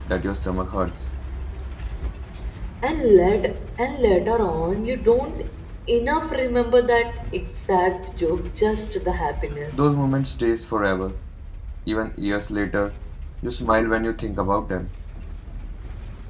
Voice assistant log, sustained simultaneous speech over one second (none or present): none